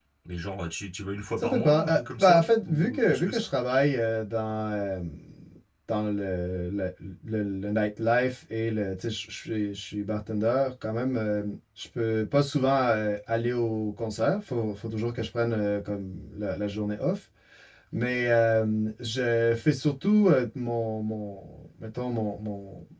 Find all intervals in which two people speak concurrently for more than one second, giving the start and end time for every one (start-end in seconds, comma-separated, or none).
1.4-3.5